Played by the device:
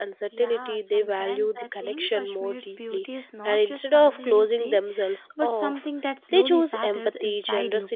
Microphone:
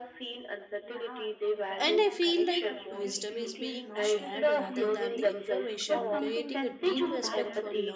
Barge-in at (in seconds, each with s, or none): 1.8 s